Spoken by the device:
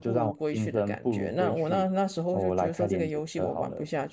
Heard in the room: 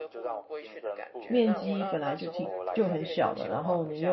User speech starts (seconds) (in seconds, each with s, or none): 1.3 s